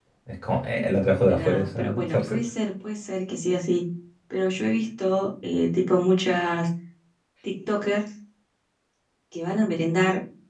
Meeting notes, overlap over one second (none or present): present